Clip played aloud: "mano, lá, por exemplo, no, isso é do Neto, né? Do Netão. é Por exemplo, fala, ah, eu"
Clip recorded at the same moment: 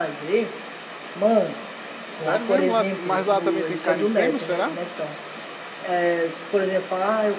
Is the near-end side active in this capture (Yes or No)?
Yes